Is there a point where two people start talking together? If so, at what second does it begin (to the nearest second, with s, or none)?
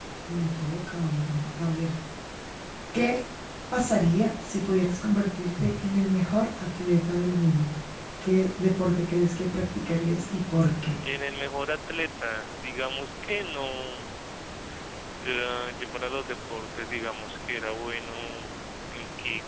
none